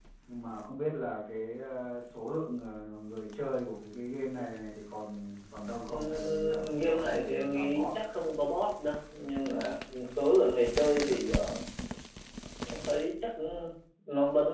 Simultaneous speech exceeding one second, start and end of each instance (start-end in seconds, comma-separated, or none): 5.9-7.9